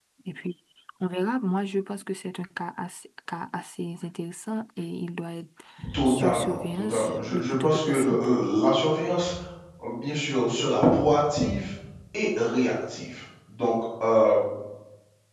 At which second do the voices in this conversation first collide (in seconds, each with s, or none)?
6.0 s